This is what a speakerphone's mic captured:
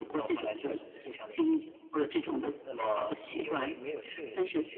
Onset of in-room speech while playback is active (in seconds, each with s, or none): none